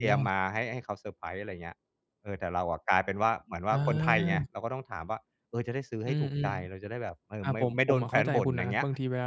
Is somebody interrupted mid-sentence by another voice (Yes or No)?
Yes